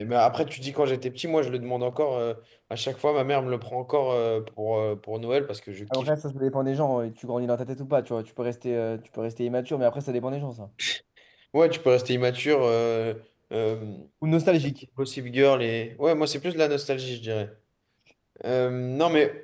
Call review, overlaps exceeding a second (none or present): none